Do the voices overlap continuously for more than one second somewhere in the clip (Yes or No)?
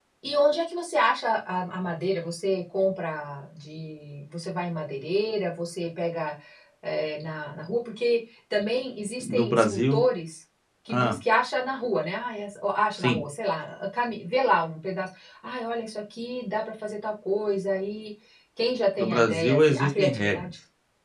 Yes